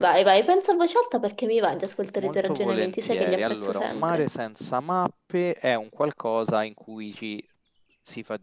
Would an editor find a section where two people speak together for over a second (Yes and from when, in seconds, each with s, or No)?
Yes, from 2.2 s